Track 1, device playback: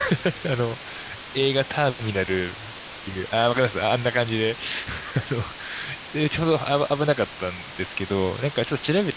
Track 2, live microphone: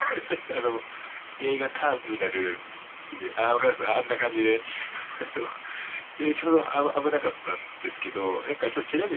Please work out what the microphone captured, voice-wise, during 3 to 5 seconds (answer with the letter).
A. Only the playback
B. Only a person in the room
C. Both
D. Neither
A